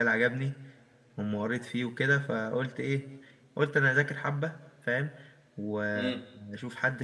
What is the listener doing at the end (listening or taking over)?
listening